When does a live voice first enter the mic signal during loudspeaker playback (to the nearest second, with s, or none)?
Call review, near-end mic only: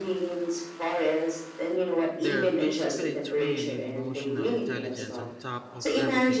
2 s